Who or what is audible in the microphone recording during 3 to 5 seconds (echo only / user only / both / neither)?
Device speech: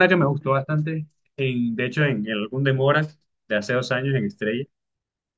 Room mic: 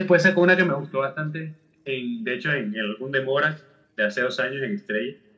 echo only